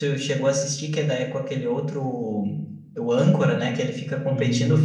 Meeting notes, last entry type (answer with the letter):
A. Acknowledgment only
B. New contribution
A